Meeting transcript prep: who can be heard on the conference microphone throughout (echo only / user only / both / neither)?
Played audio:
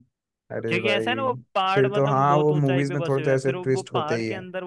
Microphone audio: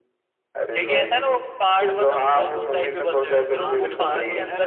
both